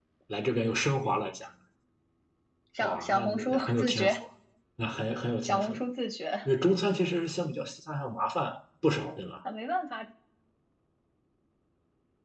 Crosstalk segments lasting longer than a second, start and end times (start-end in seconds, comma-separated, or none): 2.8-4.2